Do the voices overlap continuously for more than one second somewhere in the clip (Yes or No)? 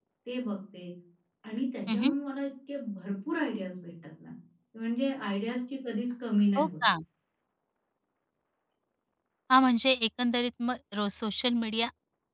No